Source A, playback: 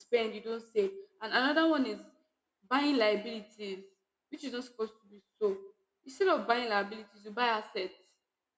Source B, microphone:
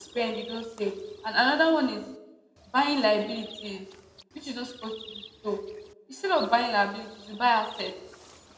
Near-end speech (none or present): none